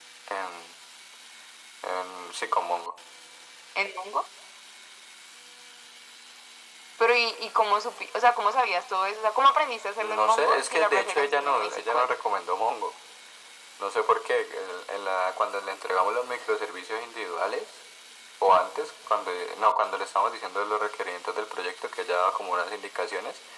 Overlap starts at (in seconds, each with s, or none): 10.0 s